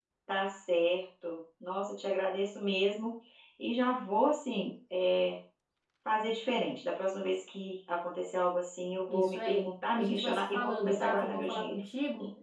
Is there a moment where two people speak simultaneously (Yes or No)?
Yes